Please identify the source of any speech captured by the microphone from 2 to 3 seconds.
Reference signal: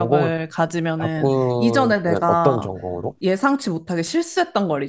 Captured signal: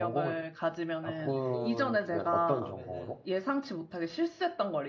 both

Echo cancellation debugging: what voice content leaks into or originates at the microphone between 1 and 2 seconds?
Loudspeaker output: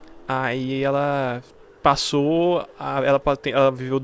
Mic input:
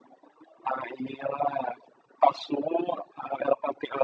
echo only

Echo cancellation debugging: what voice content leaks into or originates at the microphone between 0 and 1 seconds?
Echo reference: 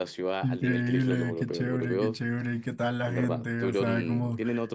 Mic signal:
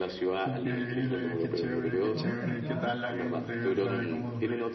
echo only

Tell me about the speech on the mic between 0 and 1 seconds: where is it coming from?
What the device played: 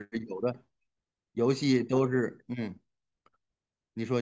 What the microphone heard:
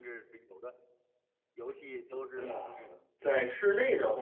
echo only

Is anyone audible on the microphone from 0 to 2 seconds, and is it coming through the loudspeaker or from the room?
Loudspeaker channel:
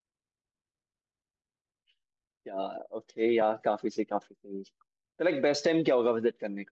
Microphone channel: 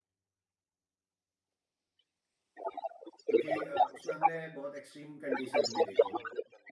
neither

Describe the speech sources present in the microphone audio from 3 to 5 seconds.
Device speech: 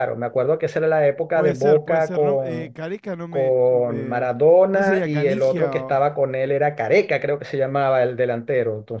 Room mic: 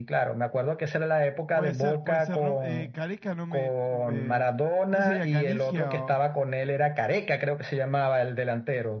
echo only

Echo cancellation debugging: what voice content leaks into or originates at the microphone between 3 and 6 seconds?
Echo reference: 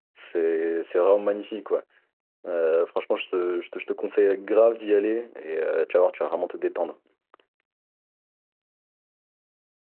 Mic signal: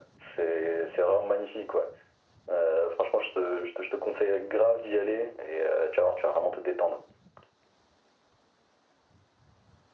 echo only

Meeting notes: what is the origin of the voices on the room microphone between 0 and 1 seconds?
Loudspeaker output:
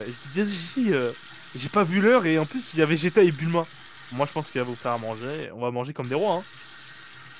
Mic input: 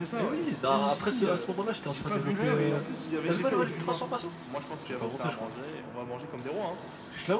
both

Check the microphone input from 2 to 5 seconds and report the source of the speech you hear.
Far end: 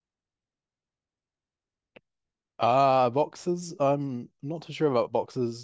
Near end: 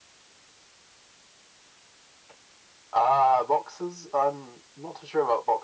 echo only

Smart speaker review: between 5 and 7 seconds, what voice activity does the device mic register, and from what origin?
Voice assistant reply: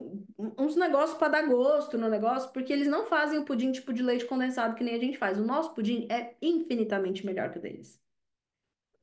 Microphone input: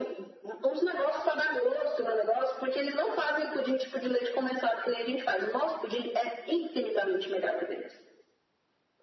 echo only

